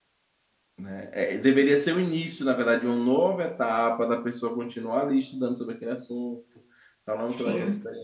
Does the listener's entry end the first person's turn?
No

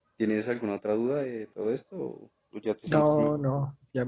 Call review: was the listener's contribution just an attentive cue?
No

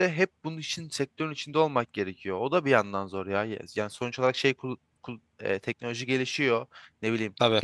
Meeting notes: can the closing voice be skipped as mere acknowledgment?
Yes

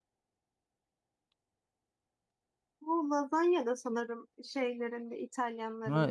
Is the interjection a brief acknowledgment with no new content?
No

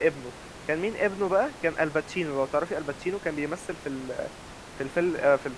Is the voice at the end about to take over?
No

